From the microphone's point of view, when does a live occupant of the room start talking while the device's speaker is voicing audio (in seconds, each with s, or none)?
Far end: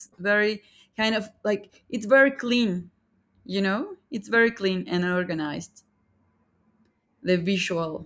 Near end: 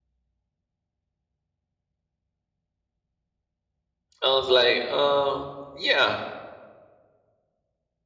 4.2 s